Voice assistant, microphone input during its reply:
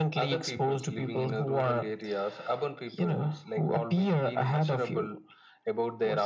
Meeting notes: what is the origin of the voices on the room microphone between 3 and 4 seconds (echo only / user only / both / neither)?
echo only